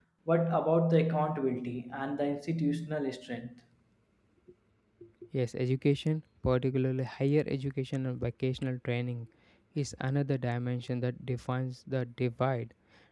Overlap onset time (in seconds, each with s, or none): none